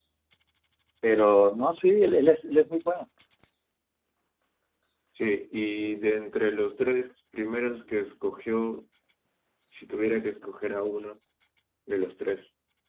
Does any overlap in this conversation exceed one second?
No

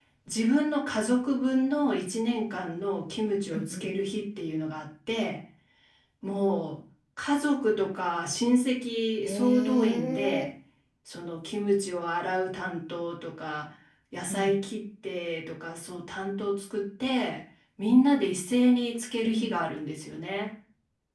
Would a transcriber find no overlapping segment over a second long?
No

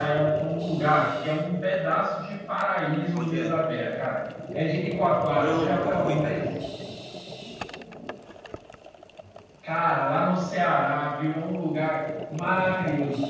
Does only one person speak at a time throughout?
No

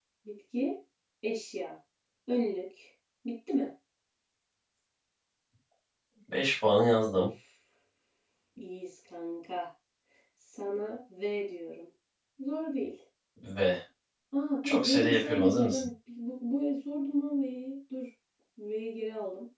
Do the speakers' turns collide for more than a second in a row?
Yes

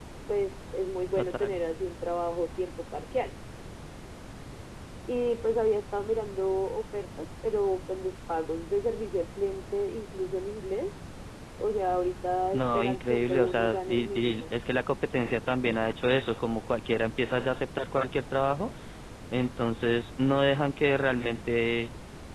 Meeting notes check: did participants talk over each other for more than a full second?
Yes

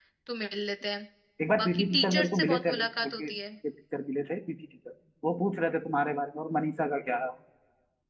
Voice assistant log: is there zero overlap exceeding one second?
No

